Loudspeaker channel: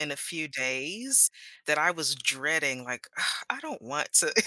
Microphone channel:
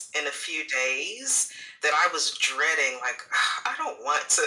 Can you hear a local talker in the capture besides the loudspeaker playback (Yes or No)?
No